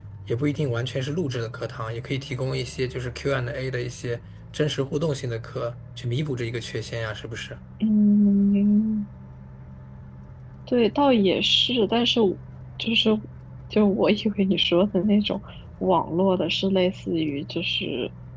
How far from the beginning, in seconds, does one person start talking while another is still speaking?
none

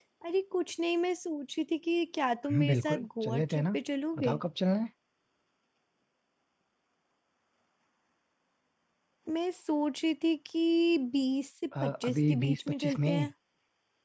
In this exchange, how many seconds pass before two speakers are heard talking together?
2.5 s

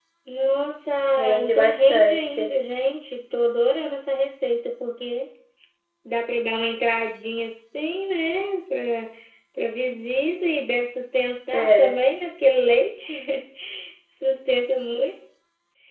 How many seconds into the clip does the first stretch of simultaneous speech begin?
1.2 s

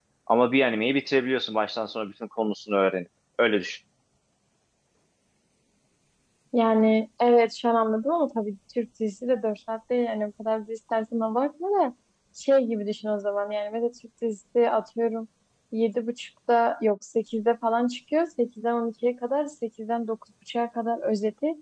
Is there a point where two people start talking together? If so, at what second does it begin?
none

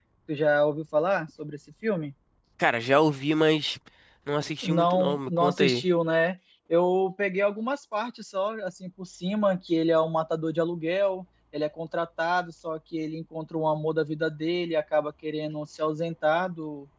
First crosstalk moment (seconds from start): 4.6 s

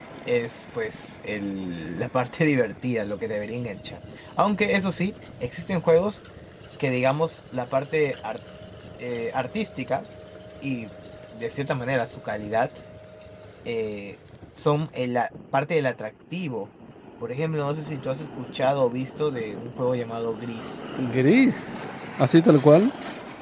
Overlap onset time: none

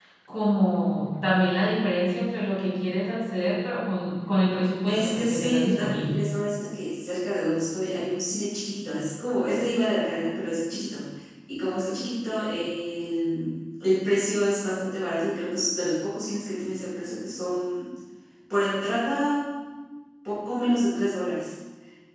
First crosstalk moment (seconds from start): 4.8 s

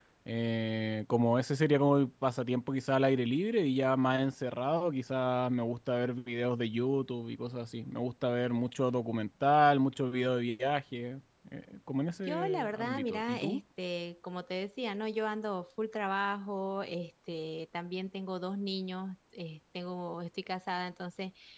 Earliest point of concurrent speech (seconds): 12.3 s

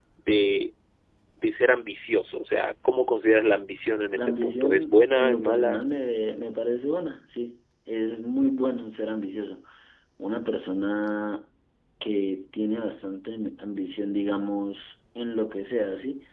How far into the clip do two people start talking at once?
4.2 s

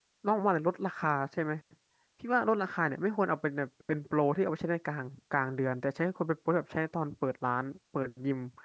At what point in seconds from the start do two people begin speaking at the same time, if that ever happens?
none

